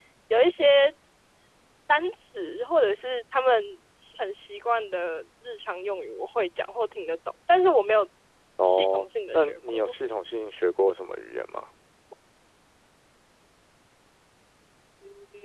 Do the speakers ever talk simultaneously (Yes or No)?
Yes